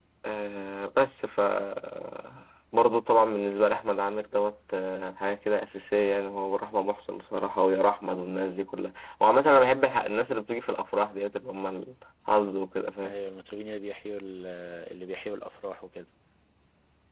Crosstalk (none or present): none